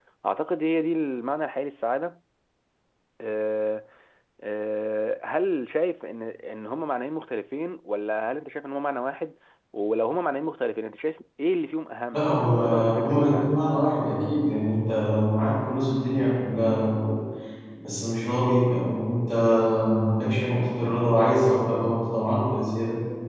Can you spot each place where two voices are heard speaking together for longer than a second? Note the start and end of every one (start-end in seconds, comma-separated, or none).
12.1-13.6